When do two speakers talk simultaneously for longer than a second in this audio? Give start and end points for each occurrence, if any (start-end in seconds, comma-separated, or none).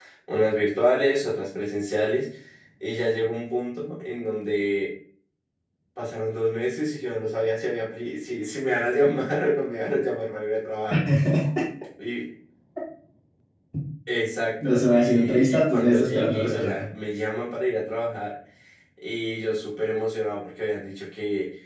14.6-16.9